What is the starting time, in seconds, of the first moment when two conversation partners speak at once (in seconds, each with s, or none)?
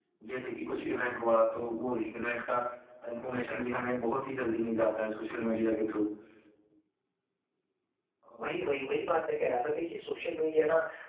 none